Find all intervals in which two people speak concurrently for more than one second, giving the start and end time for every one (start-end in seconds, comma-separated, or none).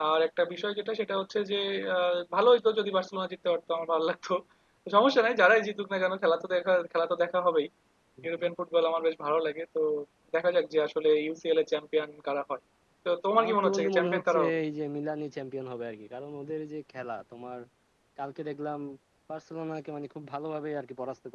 13.4-14.6